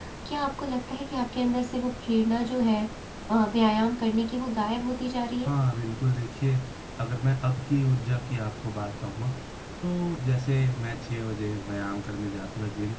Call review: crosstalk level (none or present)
none